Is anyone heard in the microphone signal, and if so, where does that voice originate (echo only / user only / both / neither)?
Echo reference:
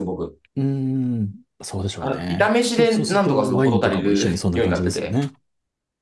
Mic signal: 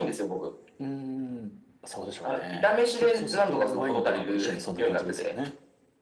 echo only